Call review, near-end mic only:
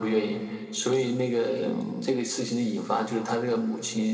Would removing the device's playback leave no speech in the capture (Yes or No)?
No